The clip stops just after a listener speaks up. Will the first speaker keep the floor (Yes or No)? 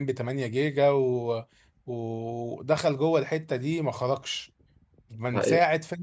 Yes